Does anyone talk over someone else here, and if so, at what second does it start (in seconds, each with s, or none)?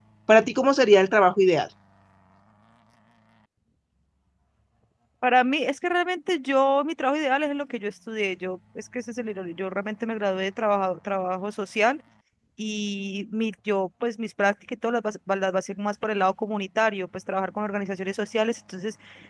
none